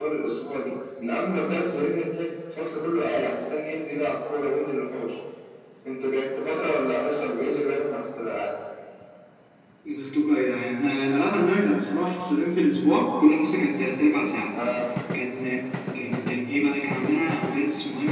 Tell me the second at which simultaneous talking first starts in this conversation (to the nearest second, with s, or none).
none